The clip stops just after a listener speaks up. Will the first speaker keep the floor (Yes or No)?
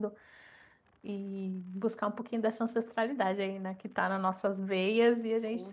No